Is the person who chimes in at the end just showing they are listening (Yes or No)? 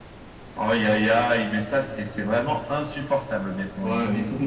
No